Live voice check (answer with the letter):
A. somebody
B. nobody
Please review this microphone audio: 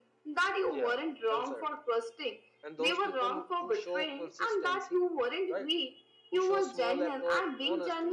A